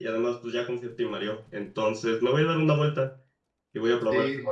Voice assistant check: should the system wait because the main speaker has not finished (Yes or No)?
Yes